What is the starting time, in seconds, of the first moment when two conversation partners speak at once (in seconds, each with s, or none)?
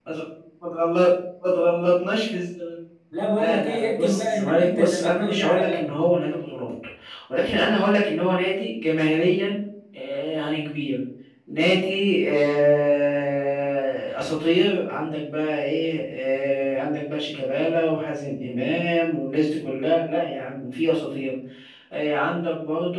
3.4 s